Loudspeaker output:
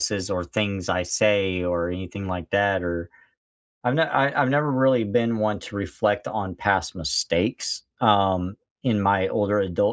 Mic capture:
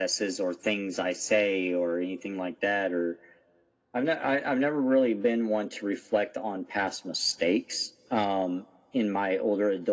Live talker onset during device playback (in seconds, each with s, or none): none